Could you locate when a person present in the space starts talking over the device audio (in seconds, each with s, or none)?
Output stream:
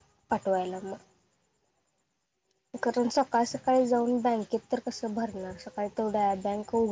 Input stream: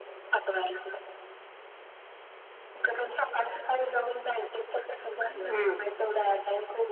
5.3 s